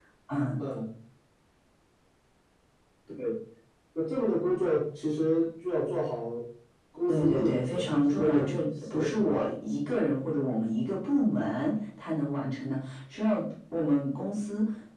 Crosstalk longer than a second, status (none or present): present